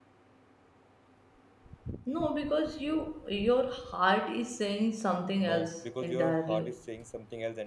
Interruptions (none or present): present